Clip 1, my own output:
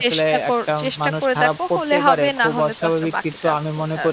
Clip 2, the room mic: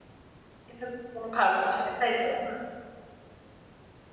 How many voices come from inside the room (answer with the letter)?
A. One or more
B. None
A